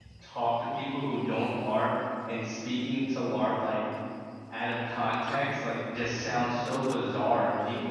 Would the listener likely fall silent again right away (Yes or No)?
Yes